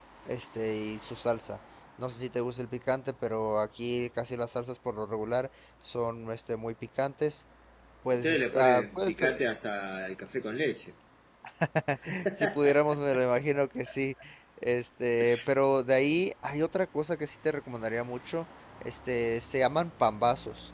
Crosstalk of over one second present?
Yes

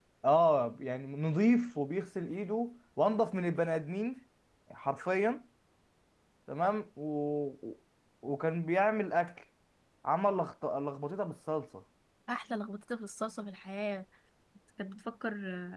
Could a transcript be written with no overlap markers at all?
Yes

